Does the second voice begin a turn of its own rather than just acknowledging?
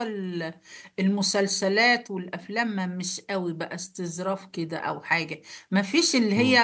No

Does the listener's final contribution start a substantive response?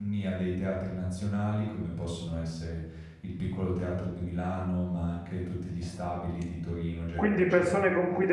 Yes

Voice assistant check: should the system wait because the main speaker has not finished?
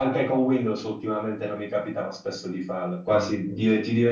Yes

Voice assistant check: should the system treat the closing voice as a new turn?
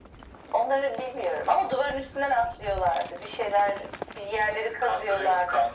Yes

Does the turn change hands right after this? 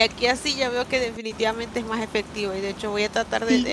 No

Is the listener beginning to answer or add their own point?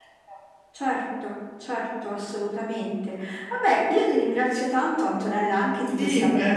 Yes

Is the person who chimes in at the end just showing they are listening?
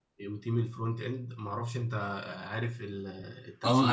No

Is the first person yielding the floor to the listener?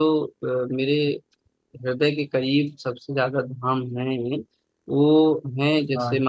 No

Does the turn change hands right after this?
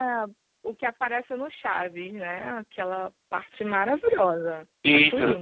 Yes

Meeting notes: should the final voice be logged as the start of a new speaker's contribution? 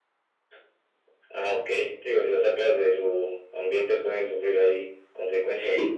Yes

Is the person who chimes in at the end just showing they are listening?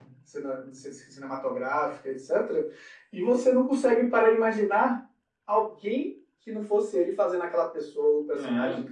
No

